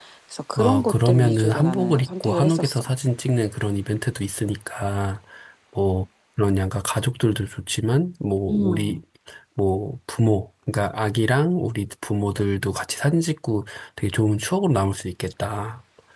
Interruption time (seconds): 0.6 s

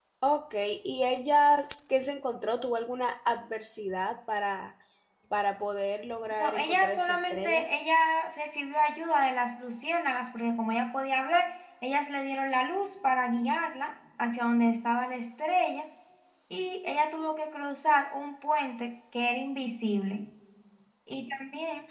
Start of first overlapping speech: 6.4 s

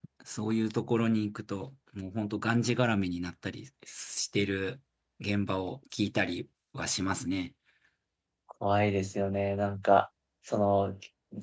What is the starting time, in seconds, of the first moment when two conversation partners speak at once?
none

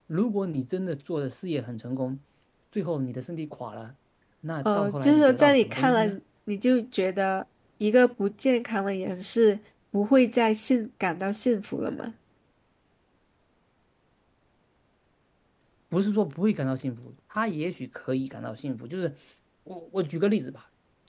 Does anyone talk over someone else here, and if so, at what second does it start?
4.6 s

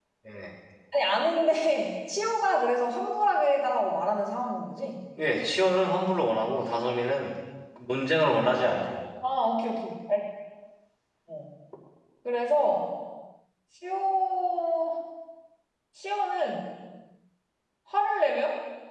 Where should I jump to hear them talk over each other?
none

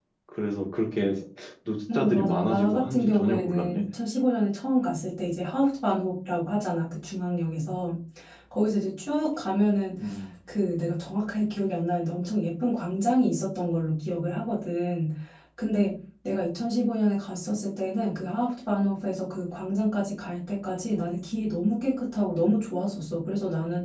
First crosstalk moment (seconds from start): 1.9 s

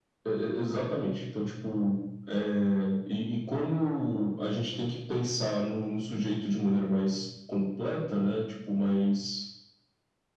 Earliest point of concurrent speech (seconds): none

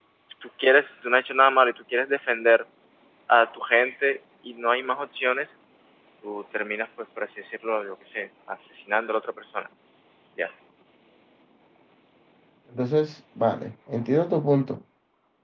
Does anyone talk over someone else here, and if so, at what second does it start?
none

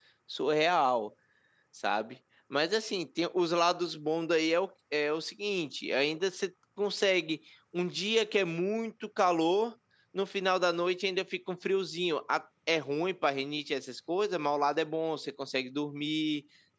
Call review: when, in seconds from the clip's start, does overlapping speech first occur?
none

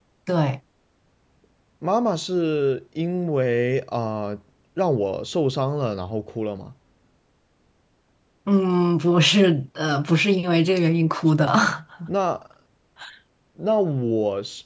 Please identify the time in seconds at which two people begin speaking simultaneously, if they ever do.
none

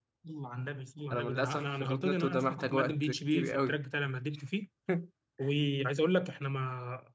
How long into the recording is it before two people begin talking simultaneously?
1.1 s

